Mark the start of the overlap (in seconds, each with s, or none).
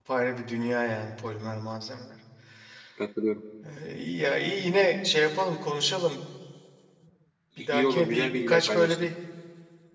7.6 s